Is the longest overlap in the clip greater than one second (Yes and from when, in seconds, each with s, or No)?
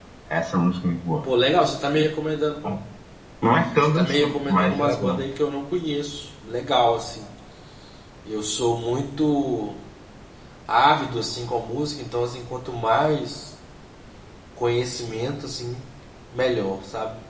Yes, from 3.8 s